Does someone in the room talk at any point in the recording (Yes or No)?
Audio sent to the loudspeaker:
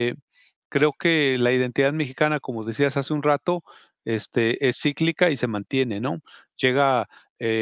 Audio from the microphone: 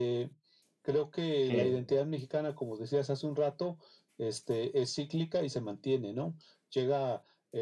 Yes